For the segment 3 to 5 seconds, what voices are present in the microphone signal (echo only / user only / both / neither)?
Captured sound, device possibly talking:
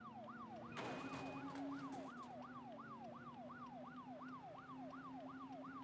neither